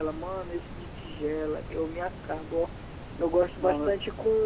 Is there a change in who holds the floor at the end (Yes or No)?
No